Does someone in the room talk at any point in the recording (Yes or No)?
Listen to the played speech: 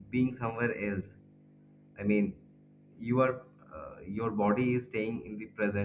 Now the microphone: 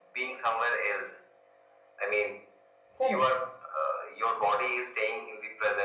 Yes